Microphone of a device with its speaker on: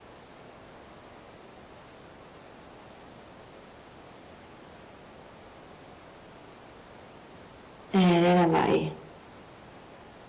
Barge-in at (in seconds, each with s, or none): 7.9 s